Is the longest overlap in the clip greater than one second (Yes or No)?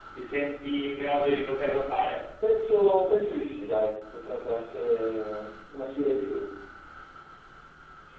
No